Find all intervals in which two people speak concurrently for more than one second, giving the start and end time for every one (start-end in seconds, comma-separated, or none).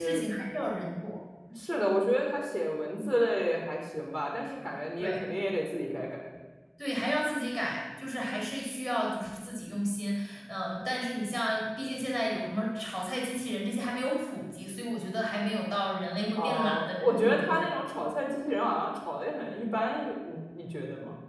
16.4-17.6